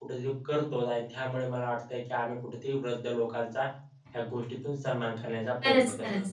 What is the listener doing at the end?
taking over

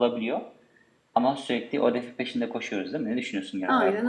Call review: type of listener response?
taking over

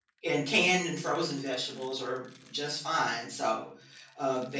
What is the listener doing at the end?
listening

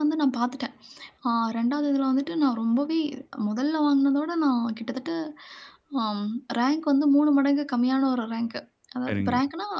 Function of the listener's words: listening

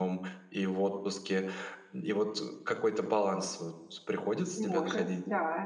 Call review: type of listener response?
taking over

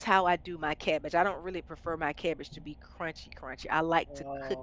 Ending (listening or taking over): taking over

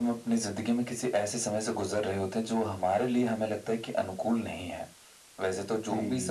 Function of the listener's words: listening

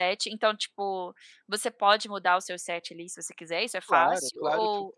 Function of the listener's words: taking over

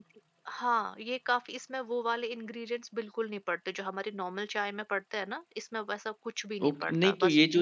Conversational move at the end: taking over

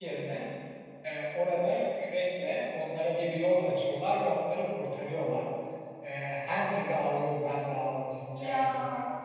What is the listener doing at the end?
listening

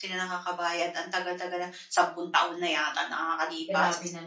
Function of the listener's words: taking over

